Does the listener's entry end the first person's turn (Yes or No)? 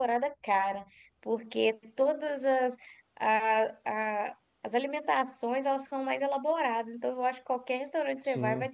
No